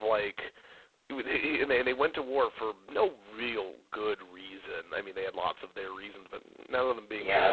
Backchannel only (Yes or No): No